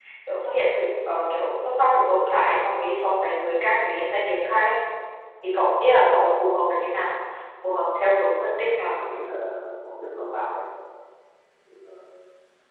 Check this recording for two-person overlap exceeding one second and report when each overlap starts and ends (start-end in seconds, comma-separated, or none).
none